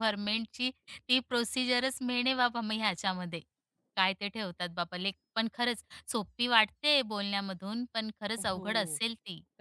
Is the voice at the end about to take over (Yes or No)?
Yes